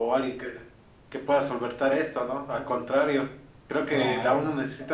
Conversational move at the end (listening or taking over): listening